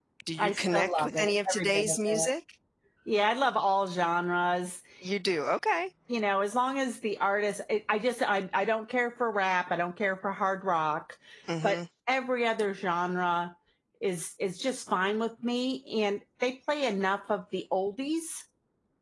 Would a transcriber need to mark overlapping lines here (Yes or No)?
Yes